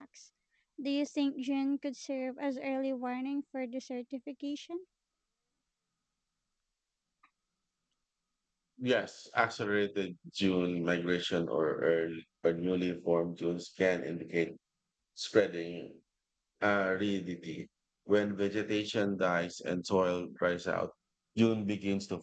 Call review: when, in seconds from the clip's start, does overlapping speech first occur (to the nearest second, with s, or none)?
none